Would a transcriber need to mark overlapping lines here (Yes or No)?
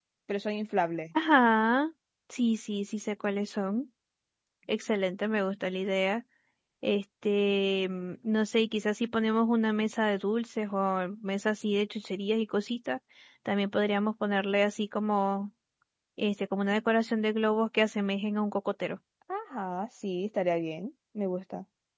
No